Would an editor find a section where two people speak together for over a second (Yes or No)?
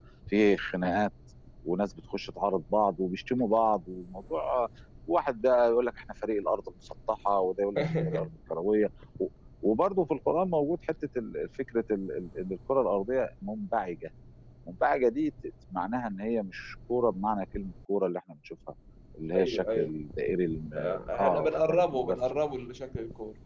Yes